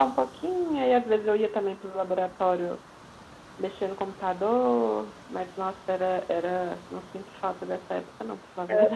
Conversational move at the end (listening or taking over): taking over